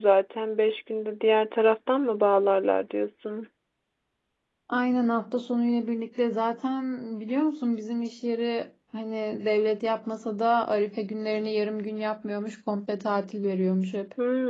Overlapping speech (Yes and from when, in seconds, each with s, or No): No